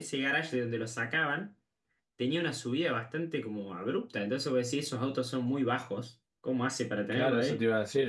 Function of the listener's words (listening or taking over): taking over